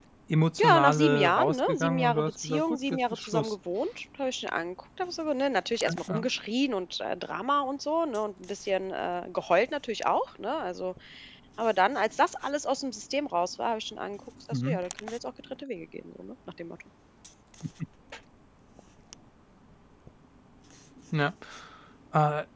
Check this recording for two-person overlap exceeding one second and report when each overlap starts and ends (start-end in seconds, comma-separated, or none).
0.6-3.5